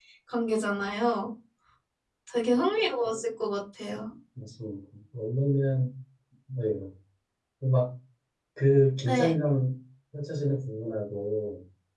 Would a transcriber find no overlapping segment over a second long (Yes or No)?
Yes